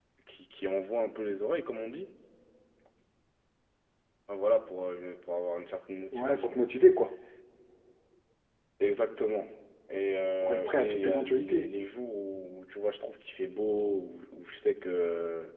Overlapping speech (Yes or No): Yes